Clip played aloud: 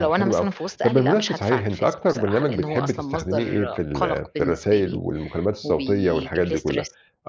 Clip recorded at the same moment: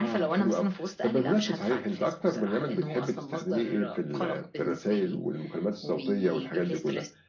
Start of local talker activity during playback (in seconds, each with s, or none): none